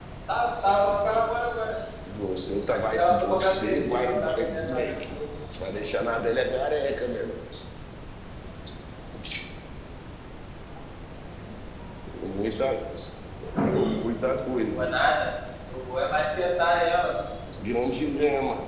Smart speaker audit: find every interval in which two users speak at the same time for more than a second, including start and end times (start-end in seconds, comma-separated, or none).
2.7-5.1